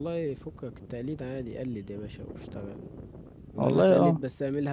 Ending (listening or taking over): listening